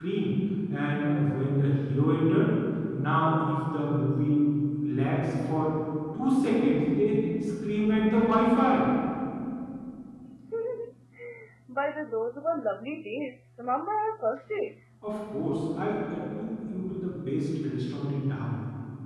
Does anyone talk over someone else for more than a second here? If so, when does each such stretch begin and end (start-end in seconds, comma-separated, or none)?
none